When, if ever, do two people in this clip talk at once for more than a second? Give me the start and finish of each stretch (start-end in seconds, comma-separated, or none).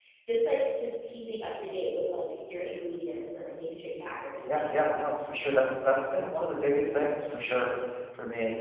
none